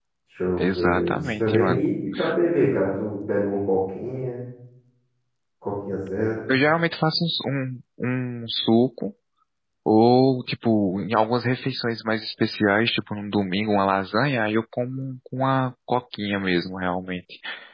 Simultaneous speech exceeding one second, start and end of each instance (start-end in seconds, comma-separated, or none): 0.6-1.9